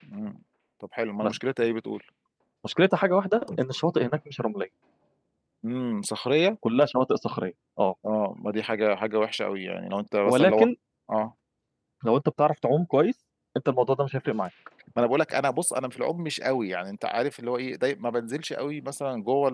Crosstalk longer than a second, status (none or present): none